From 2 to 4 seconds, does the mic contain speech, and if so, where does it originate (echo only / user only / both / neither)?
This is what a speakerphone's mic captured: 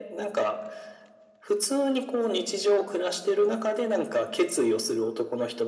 echo only